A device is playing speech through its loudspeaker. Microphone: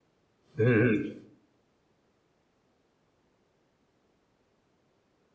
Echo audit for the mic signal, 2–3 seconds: neither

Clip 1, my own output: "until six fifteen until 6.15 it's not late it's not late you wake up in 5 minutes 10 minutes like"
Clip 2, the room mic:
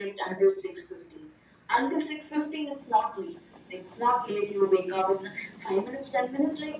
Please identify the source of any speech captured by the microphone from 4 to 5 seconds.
echo only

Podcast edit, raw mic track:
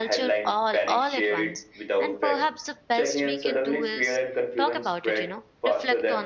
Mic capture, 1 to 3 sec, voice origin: both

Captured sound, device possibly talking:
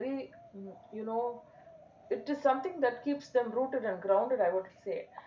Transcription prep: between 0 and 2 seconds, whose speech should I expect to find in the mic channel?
echo only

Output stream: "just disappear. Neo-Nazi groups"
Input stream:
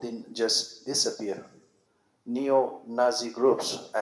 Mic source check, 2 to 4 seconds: echo only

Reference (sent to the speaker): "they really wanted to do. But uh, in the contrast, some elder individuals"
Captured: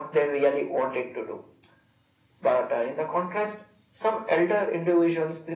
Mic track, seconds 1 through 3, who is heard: echo only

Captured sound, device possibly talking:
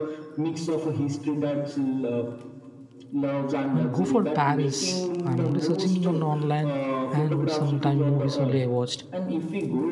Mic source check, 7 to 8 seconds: both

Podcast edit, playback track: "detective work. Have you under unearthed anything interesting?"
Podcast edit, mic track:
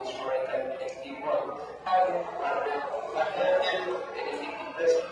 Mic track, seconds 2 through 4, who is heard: echo only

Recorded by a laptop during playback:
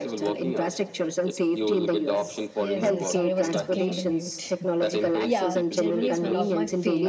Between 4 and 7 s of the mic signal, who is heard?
both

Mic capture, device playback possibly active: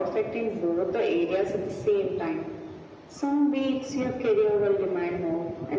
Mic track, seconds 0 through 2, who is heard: echo only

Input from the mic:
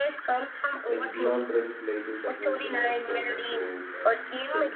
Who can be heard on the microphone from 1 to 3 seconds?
both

